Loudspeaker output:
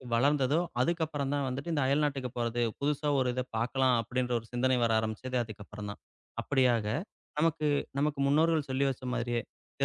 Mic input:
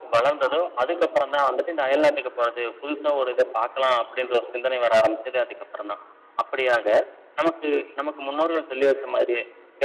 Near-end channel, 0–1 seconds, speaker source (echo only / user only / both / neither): echo only